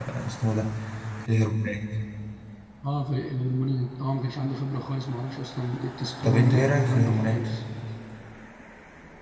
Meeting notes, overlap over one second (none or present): present